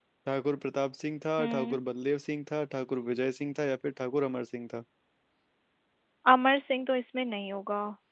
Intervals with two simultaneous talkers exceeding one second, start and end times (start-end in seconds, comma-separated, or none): none